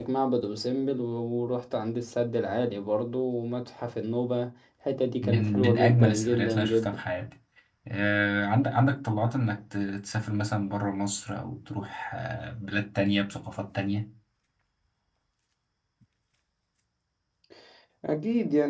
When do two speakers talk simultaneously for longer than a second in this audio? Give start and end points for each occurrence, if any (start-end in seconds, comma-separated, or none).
5.2-7.0